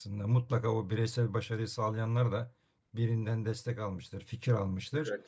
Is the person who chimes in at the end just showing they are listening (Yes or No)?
Yes